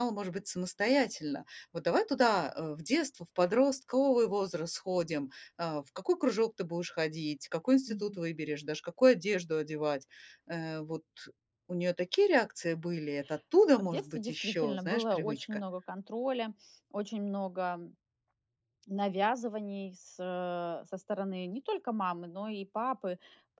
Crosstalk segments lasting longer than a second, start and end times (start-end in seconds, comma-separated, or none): 13.8-15.6